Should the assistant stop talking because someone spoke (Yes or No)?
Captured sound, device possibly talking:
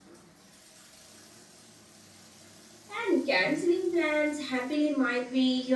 Yes